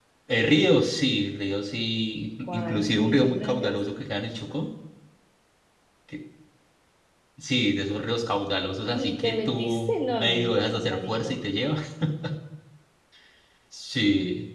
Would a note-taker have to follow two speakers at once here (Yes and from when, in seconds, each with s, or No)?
Yes, from 2.5 s